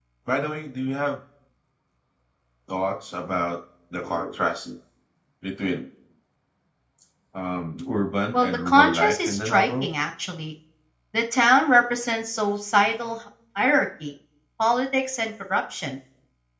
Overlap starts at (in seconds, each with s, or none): 8.3 s